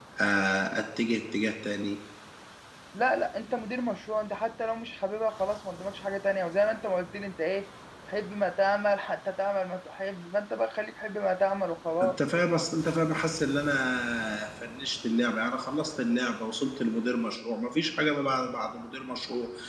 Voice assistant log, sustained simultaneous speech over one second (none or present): none